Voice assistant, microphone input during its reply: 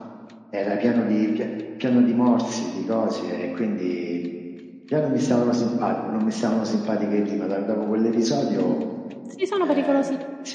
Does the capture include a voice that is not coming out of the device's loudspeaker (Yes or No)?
Yes